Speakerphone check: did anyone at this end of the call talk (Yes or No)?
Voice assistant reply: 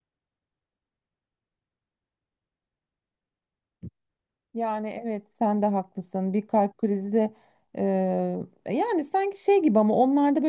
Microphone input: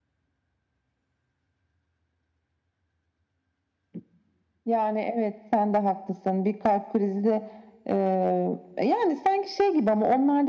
No